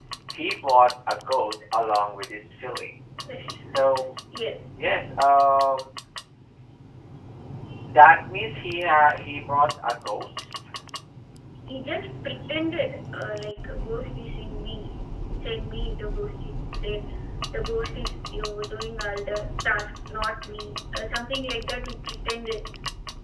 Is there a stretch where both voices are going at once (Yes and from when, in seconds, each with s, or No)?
No